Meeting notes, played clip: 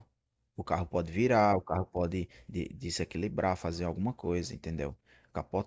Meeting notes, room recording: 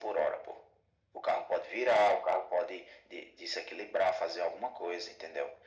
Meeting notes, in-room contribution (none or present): none